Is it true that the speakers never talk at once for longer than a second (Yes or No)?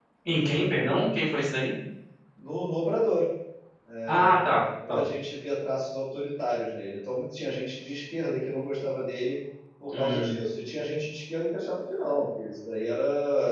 Yes